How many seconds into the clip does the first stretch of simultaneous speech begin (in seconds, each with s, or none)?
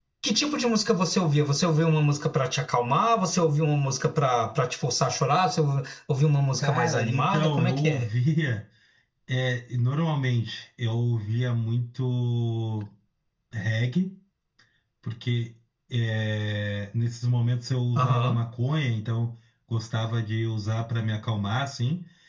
6.6 s